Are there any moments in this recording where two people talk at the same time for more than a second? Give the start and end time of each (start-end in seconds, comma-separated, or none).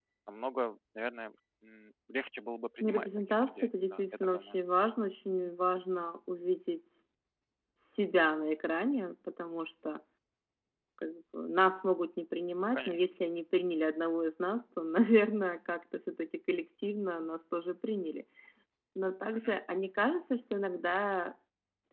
2.8-4.6